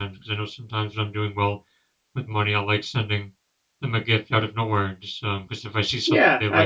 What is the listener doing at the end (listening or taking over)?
taking over